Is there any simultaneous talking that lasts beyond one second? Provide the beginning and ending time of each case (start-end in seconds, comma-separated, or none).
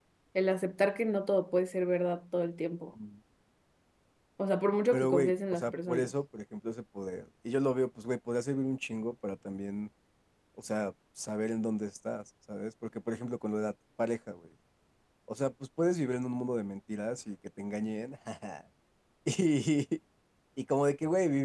4.9-6.1